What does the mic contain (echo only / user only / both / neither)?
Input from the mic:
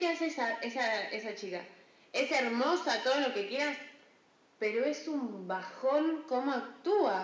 echo only